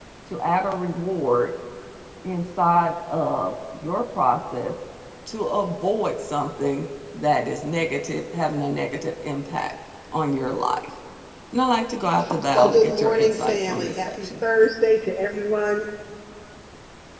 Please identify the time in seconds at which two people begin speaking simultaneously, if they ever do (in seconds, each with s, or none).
12.5 s